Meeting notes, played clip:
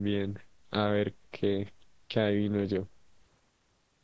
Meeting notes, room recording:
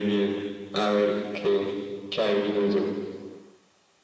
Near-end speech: none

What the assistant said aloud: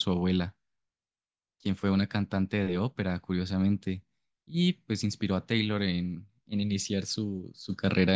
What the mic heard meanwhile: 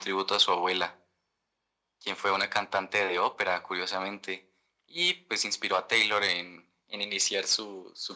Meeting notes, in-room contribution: none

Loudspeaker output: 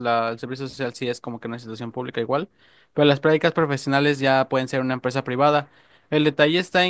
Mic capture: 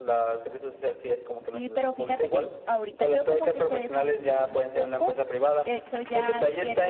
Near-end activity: present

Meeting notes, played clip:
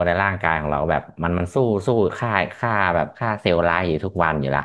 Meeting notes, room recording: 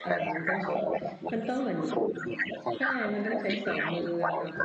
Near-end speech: present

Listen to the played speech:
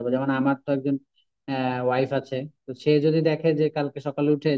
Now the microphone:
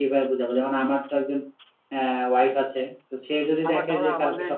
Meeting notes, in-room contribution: present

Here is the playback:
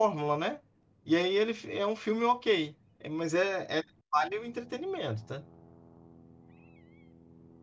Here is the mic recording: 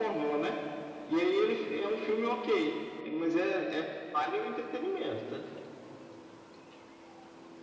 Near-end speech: none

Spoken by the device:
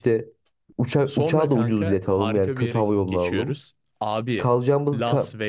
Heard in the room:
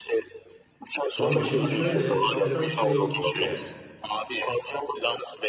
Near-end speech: present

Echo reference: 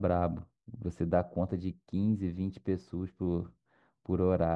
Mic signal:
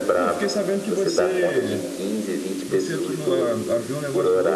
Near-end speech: present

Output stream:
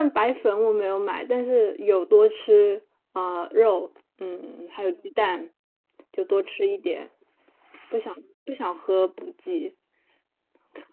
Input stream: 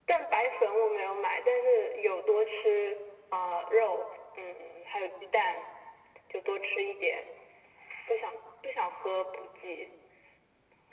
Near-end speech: none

